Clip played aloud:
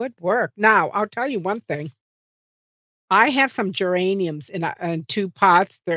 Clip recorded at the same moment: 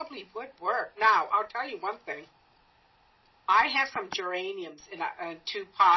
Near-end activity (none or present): none